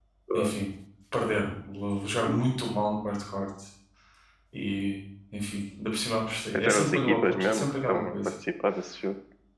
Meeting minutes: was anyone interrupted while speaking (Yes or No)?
Yes